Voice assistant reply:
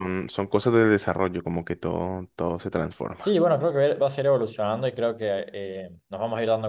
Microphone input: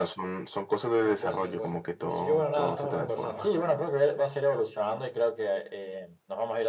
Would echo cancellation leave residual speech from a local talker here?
Yes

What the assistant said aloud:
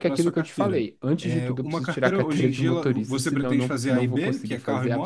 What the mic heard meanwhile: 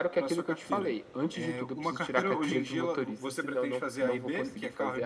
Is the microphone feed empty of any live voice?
Yes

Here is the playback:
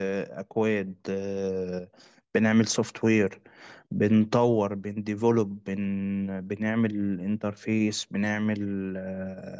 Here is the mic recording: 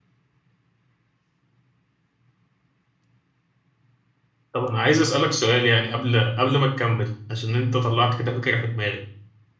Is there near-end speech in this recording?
Yes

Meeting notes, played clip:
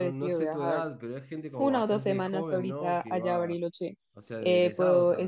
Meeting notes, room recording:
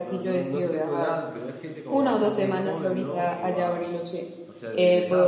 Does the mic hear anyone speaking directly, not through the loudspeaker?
No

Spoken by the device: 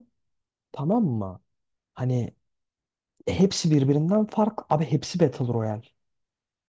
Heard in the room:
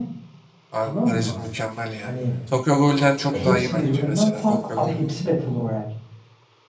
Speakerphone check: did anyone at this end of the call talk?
Yes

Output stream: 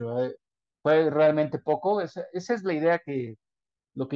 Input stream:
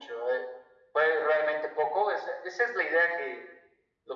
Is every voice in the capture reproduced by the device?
Yes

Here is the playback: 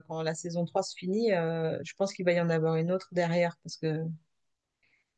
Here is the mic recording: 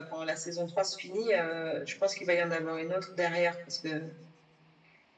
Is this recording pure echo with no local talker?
Yes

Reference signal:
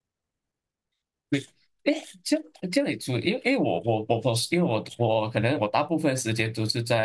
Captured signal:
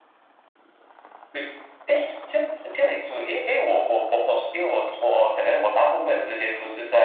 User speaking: No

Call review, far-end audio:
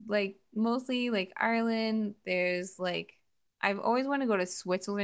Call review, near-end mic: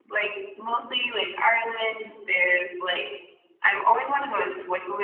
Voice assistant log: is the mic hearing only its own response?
Yes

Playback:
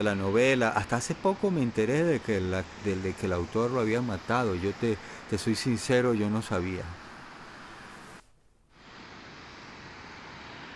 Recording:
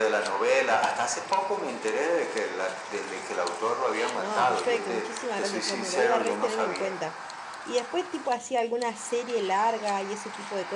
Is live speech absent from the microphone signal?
No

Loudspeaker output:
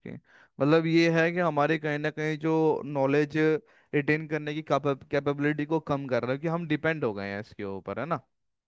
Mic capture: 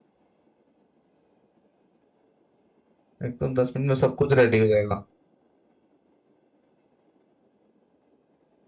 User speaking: Yes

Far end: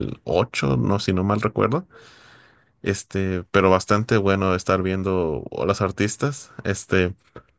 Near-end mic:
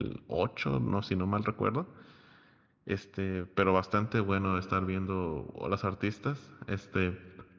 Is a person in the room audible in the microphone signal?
No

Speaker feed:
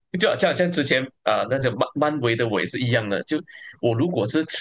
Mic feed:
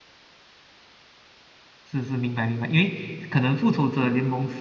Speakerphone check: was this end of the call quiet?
No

